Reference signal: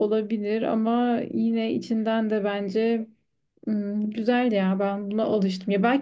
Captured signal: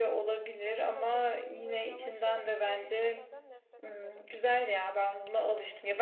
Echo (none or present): present